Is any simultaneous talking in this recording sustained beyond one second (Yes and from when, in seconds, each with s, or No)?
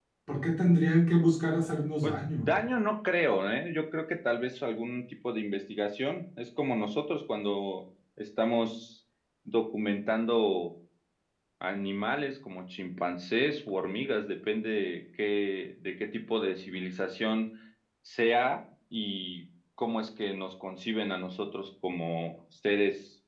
No